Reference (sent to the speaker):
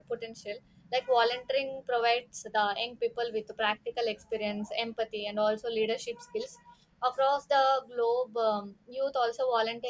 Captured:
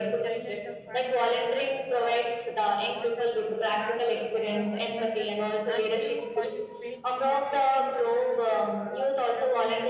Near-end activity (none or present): present